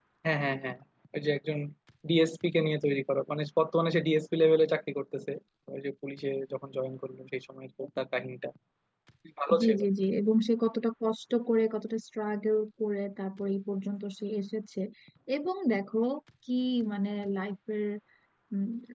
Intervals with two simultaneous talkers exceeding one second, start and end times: none

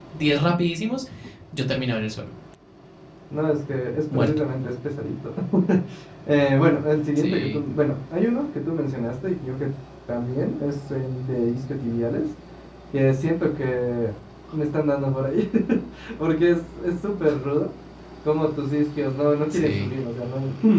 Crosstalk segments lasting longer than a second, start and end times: none

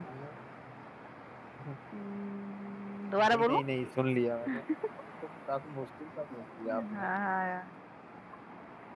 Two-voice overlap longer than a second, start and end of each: none

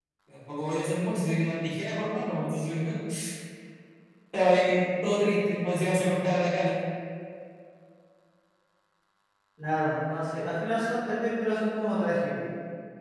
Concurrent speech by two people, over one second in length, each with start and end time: none

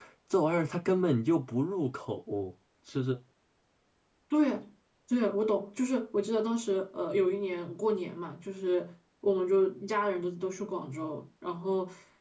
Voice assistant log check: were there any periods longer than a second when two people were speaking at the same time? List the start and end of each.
none

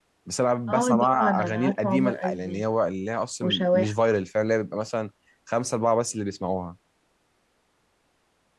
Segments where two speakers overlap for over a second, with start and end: 0.7-2.6

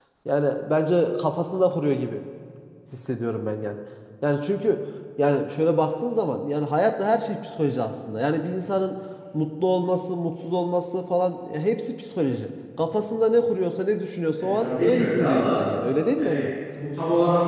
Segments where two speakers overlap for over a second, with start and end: 14.4-15.6

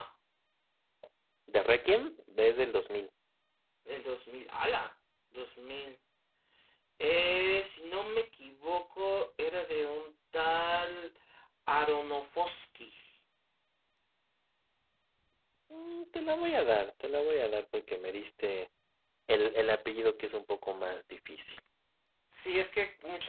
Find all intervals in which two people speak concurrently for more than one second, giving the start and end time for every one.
none

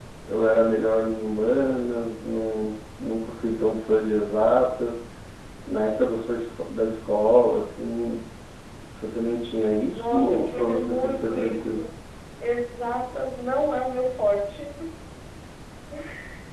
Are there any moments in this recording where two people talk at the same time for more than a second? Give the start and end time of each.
9.9-11.8

